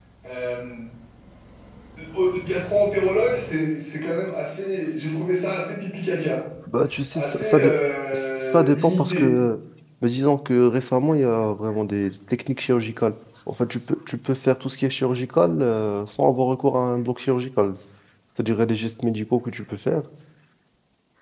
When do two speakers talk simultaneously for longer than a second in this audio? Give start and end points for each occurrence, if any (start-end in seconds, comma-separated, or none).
8.1-9.4